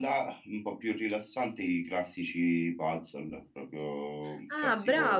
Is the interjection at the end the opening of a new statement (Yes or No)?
Yes